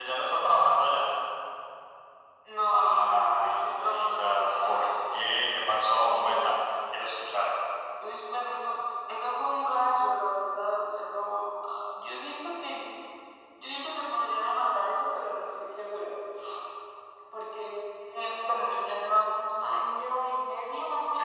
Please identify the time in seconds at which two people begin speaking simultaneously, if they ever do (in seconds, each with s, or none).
2.7 s